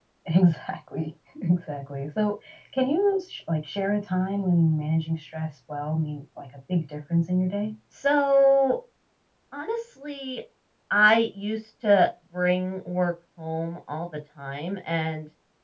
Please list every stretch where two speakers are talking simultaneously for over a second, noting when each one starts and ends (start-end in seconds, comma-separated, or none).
none